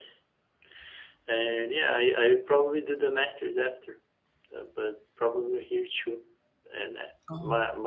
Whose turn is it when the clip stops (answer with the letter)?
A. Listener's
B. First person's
B